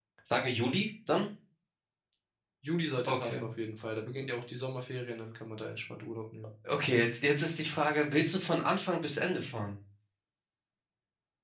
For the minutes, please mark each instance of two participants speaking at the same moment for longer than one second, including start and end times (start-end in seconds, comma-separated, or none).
none